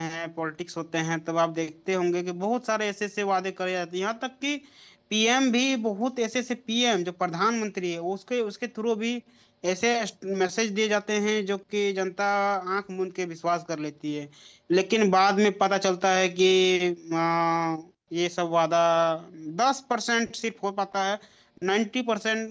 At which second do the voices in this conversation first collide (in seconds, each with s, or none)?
none